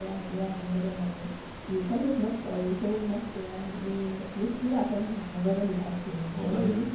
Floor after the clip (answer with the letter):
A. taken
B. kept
A